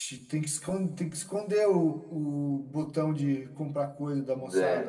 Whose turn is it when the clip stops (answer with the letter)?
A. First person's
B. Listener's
B